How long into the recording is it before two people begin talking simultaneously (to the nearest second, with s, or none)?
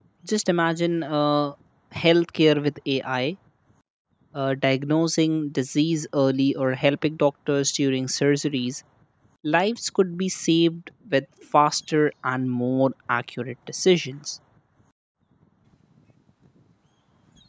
none